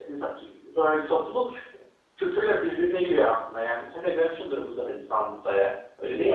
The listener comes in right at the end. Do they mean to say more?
Yes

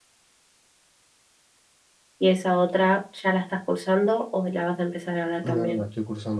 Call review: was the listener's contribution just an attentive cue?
No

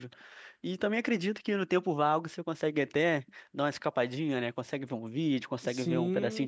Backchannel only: No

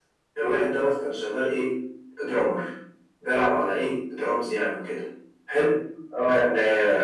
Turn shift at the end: No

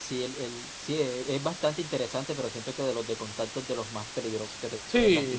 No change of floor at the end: No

